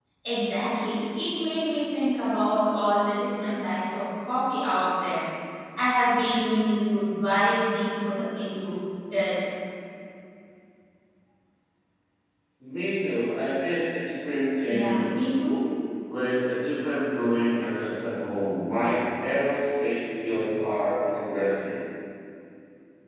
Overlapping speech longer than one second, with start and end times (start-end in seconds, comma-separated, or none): none